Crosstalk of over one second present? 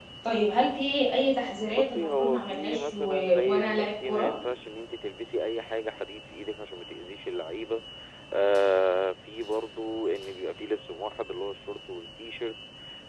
Yes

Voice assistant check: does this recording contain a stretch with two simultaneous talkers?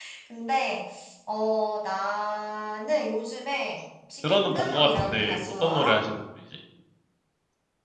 Yes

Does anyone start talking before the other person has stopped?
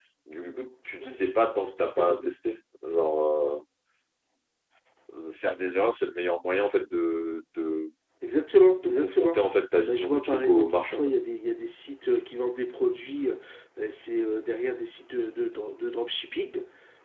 Yes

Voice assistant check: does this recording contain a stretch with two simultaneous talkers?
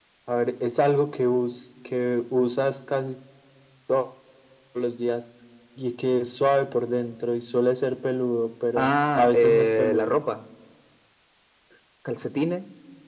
Yes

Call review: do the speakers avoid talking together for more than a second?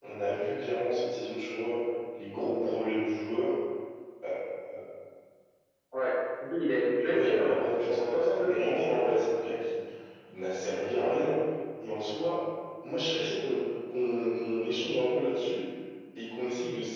No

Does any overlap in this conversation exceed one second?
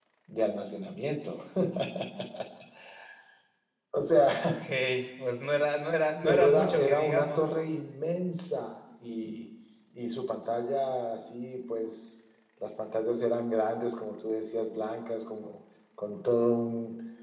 Yes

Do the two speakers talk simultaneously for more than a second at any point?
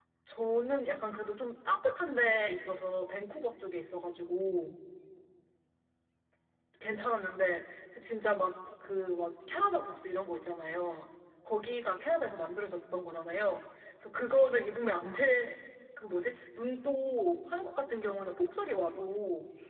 No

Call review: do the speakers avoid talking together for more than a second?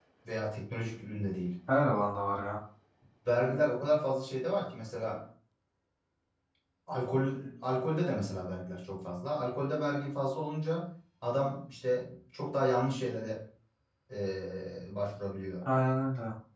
Yes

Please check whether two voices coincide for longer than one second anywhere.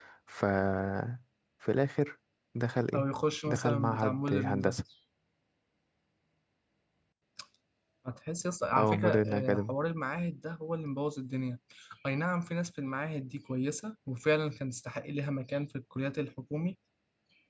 Yes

